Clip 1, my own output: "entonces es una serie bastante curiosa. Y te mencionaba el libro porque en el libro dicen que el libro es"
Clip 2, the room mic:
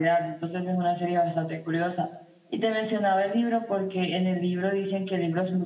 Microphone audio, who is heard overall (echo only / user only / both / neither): echo only